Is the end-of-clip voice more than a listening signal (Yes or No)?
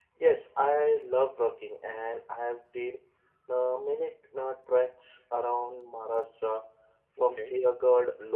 No